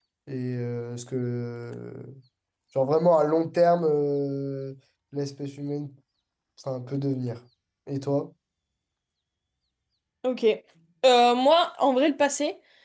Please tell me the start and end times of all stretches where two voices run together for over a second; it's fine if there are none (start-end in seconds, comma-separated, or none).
none